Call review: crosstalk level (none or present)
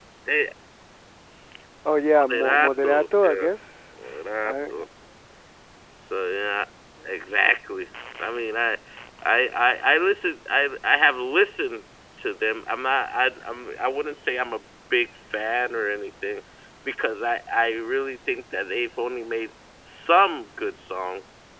present